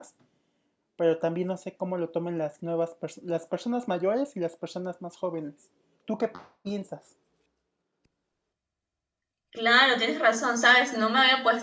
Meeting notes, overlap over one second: none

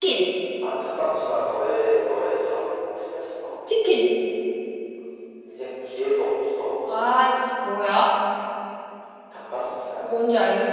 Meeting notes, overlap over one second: none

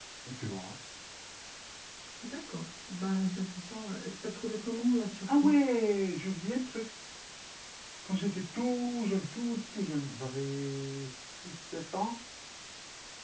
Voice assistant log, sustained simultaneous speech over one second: none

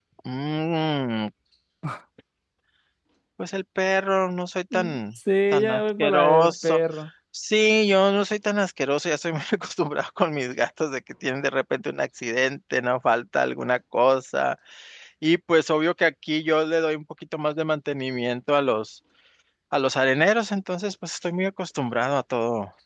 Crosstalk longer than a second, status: present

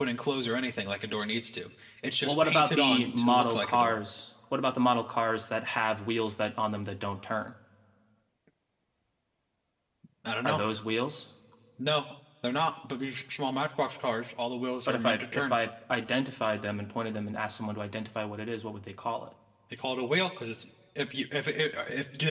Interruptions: present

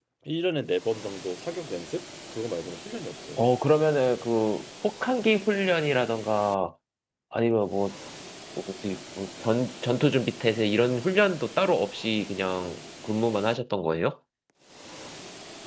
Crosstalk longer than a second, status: none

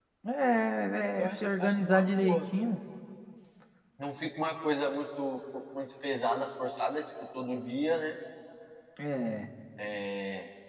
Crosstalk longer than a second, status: present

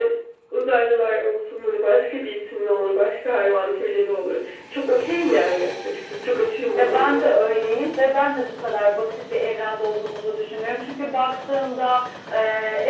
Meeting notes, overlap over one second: none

